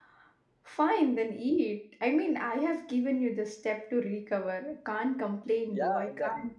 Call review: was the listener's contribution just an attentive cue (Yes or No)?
No